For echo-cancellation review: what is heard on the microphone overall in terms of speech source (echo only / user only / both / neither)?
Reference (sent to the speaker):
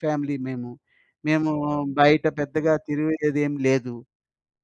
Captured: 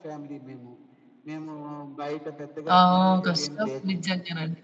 both